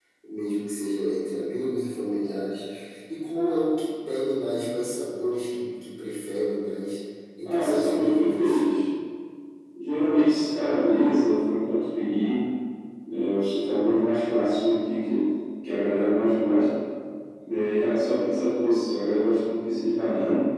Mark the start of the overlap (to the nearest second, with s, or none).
7 s